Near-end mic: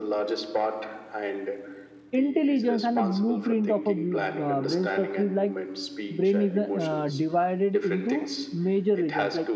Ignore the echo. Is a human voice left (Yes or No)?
Yes